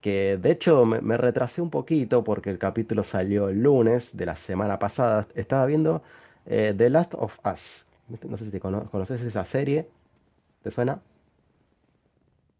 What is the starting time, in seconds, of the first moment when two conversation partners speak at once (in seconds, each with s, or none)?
none